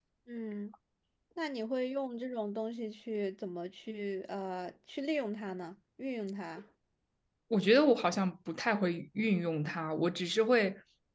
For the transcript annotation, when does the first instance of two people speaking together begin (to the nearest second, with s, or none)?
none